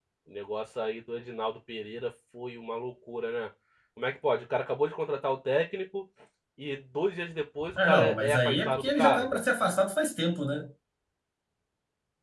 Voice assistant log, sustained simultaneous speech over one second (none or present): present